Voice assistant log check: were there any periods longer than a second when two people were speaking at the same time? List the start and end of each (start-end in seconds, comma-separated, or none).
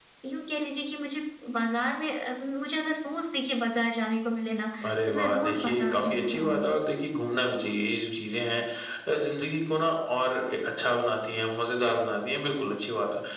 5.1-6.8